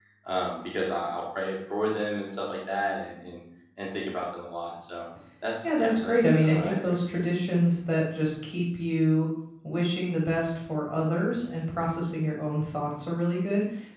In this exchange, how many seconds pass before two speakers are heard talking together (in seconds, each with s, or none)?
5.6 s